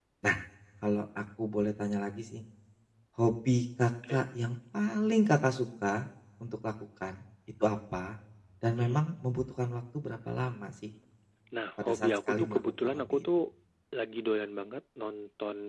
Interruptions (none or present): present